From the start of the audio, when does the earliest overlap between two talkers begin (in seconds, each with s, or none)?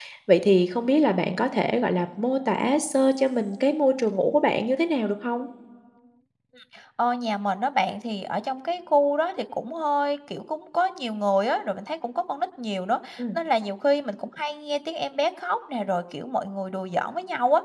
none